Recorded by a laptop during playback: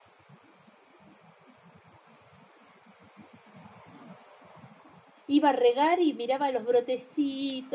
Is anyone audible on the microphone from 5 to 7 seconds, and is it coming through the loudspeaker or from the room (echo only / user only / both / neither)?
user only